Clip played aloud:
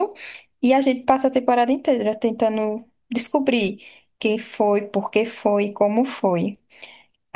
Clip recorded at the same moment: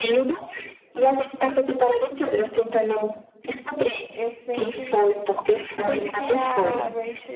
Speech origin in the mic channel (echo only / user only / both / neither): both